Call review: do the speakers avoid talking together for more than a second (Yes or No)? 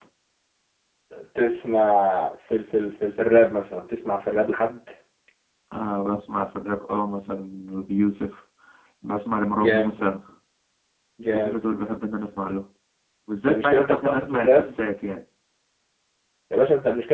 No